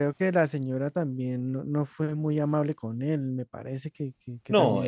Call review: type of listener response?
taking over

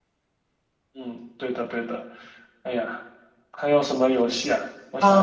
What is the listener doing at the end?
taking over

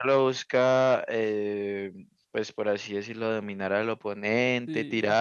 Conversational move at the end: listening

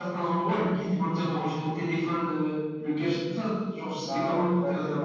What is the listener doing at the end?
taking over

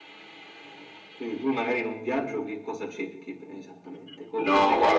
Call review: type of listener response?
taking over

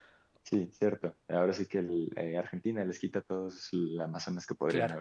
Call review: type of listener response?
taking over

